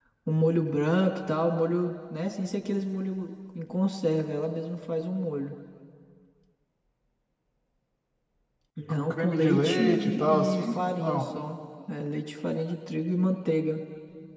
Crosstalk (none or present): present